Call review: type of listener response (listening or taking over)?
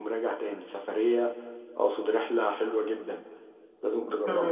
taking over